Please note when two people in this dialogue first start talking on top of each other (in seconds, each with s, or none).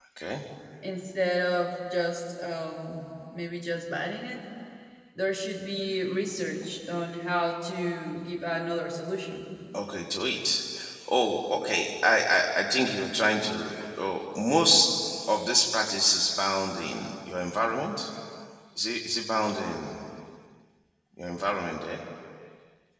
none